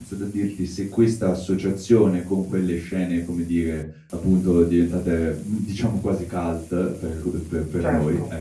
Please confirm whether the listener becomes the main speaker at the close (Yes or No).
No